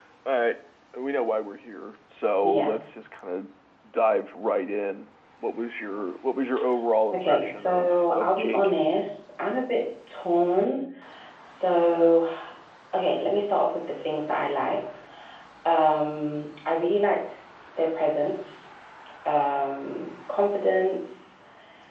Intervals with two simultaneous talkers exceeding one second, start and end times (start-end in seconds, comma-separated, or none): 7.1-8.7